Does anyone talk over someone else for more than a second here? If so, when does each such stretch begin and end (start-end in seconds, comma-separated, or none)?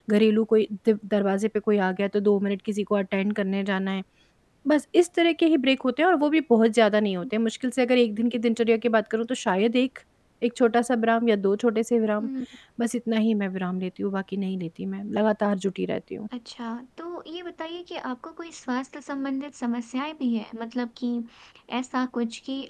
none